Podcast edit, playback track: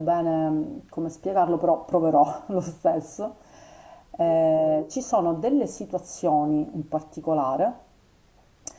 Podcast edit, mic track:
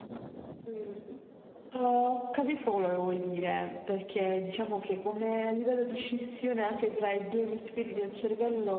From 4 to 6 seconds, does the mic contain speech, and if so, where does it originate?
user only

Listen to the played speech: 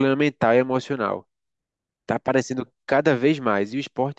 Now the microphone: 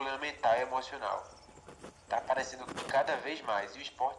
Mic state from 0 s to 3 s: echo only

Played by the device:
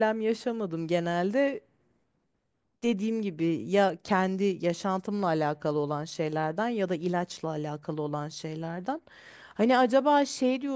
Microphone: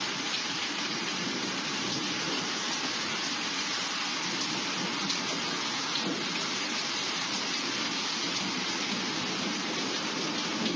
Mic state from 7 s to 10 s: neither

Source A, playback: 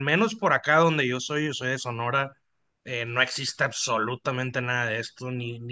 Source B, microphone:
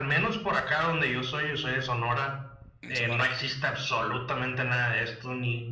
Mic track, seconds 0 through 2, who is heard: echo only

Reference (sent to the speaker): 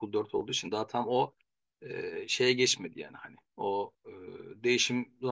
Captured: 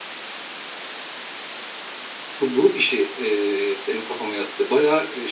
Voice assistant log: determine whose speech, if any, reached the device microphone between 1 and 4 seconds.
user only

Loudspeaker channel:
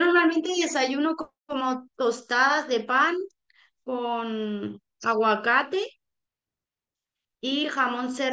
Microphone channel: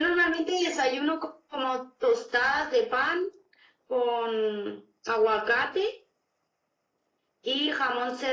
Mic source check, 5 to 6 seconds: echo only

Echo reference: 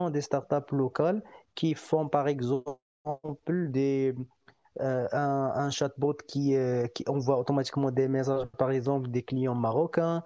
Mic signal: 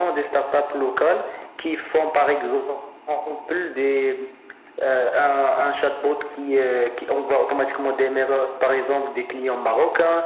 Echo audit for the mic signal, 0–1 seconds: echo only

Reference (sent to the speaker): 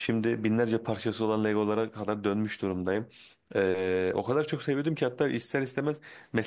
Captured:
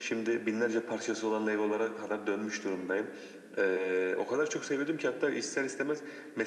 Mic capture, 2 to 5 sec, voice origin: echo only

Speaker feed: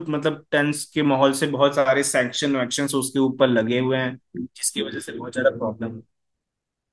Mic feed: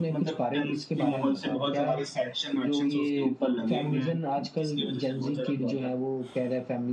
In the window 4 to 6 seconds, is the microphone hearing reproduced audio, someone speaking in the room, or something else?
both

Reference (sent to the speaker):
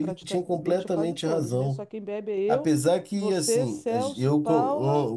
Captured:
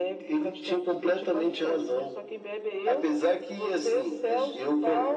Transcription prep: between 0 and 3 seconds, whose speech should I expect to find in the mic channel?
echo only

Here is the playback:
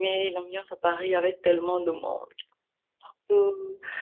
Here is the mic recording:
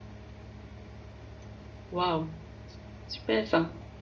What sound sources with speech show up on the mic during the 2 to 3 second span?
user only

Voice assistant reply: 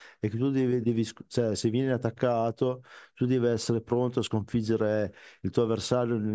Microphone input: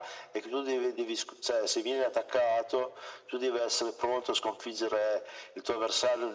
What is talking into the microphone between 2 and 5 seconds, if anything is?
echo only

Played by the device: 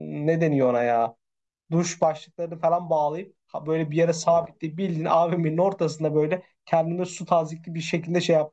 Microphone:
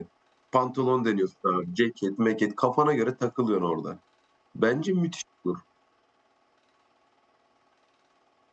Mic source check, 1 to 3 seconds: user only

